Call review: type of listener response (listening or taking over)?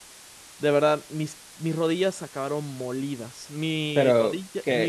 listening